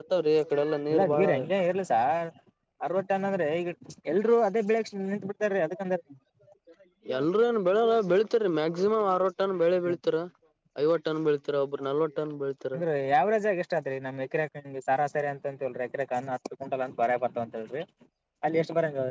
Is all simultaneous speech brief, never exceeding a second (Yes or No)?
Yes